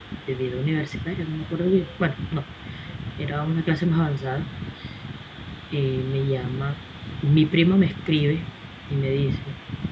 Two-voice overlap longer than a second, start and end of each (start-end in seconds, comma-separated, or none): none